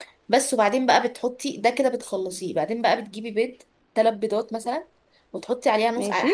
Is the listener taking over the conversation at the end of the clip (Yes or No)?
No